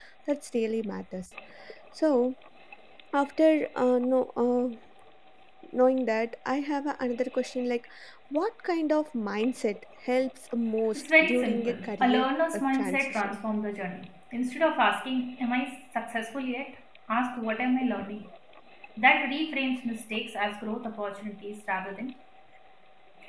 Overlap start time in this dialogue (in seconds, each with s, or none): 10.9 s